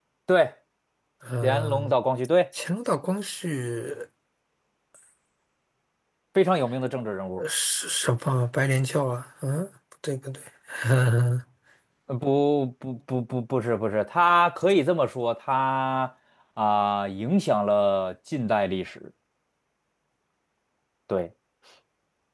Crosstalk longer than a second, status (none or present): none